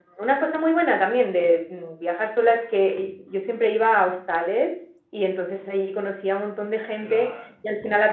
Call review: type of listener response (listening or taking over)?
listening